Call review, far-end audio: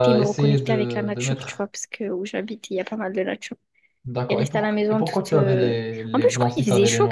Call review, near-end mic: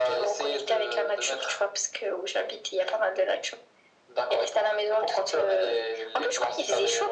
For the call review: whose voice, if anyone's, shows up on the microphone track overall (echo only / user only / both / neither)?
echo only